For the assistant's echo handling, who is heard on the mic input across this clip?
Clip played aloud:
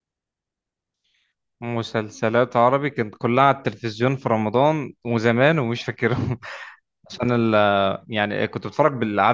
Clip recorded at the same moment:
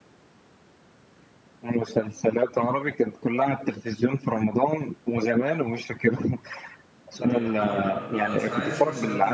both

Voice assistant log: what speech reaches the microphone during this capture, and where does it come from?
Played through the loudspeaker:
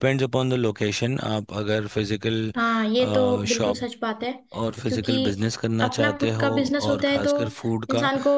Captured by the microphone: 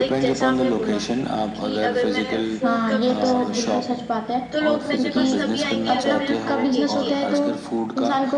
both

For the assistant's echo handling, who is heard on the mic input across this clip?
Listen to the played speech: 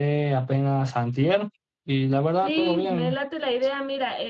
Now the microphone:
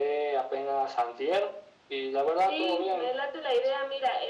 echo only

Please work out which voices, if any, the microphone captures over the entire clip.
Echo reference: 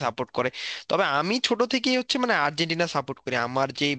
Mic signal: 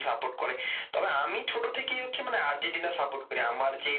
echo only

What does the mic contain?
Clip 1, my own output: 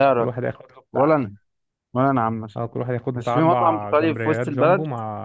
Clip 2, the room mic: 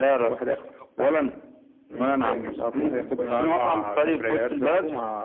both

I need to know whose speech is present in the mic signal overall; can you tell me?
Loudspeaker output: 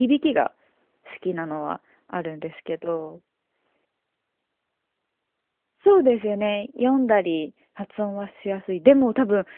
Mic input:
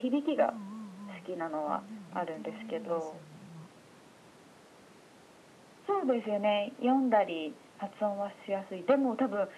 both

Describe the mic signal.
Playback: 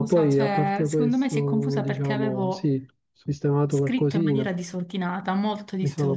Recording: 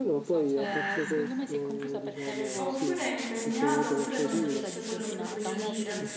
both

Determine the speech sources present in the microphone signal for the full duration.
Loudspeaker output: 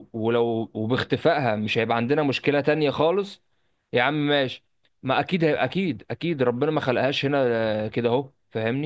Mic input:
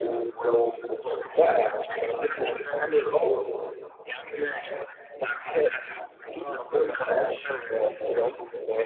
both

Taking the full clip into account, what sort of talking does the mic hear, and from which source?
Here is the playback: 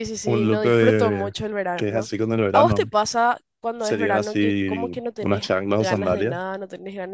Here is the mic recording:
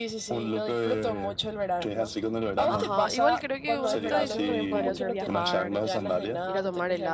both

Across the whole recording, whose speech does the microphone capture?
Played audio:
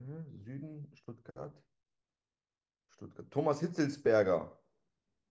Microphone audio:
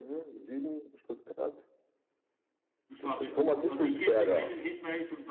both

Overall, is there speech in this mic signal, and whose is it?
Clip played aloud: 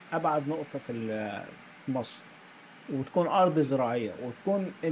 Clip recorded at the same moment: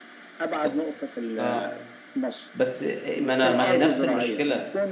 both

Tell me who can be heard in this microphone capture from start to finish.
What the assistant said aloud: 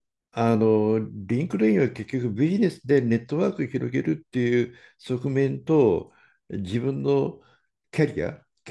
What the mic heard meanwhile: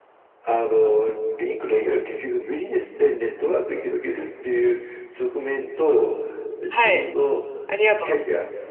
both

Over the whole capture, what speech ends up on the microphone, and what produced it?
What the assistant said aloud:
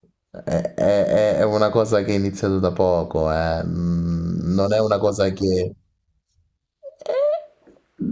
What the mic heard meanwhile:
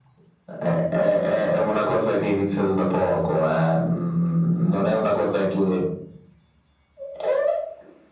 echo only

